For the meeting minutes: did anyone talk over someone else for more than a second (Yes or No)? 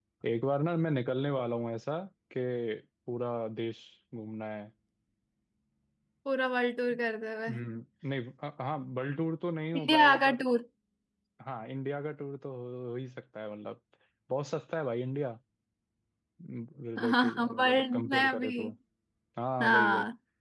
Yes